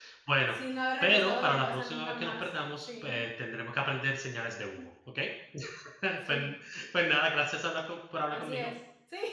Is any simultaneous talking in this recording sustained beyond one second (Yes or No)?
Yes